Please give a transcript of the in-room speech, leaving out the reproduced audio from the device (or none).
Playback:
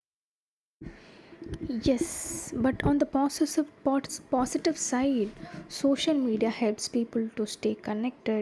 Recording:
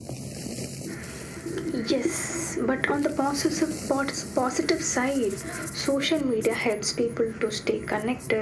none